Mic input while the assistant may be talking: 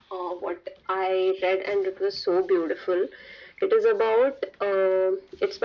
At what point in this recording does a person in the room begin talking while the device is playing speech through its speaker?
none

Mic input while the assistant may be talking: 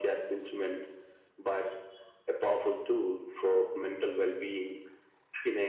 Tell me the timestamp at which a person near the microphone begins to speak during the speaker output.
none

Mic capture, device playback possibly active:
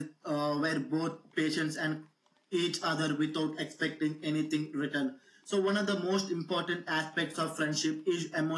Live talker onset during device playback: none

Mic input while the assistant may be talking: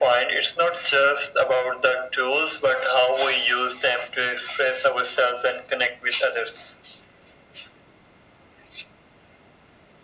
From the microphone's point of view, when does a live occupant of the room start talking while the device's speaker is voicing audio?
none

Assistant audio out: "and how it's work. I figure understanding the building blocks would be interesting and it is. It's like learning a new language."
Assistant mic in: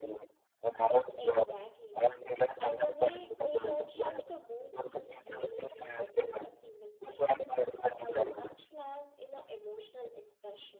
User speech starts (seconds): 1.2 s

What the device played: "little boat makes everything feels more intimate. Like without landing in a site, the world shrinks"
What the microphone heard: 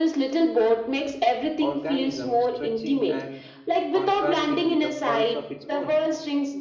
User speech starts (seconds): 1.6 s

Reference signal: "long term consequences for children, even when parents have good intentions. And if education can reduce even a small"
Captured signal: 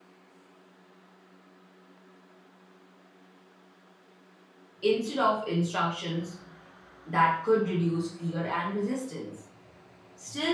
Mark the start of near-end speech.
4.8 s

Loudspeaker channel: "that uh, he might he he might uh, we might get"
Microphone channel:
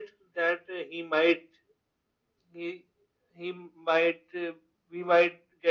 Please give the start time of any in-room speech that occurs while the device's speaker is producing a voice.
none

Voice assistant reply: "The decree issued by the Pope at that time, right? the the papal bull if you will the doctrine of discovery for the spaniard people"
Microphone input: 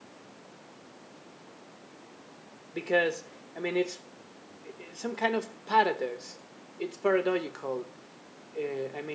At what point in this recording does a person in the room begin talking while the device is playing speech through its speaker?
2.7 s

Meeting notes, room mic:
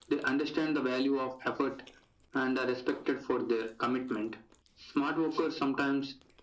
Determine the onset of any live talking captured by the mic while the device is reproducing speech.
none

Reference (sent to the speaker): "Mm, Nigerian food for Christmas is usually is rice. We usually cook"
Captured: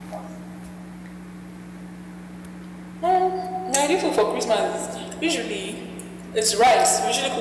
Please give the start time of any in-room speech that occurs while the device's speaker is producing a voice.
none

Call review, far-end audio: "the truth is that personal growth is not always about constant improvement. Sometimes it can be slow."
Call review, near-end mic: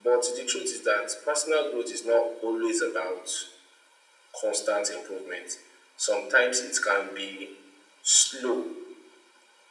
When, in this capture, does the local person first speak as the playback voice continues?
none

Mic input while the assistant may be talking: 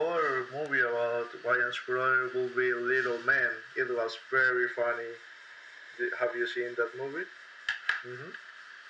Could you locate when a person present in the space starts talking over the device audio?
none

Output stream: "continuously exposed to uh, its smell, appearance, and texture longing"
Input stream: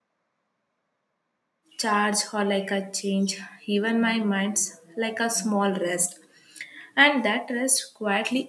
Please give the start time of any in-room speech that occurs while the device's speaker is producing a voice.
1.8 s

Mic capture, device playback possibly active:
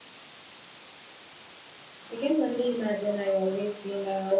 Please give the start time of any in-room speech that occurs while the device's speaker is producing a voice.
2.1 s

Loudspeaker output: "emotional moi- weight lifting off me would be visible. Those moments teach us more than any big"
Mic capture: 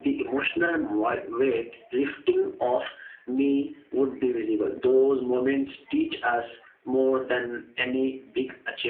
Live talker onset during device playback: none

